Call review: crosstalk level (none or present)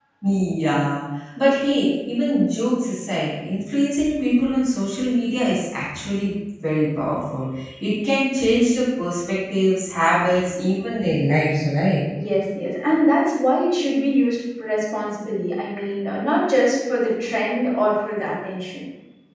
none